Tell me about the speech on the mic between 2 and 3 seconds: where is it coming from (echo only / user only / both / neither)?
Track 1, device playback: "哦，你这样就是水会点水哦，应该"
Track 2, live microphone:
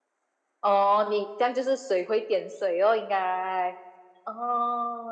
echo only